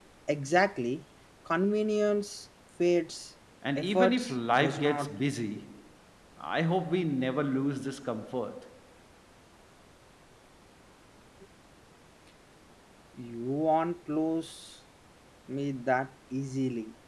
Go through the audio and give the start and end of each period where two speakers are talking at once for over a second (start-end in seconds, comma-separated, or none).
3.8-5.1